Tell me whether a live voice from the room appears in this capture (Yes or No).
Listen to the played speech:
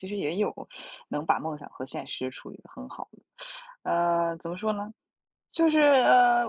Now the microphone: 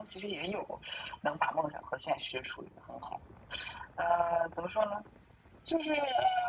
No